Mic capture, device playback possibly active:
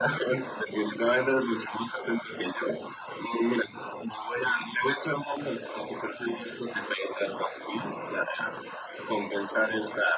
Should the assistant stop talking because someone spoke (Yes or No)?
No